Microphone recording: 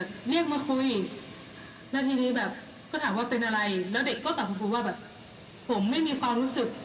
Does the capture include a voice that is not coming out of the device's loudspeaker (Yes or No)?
No